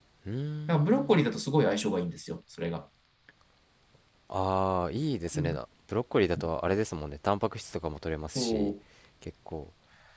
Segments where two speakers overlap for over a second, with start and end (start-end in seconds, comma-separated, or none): none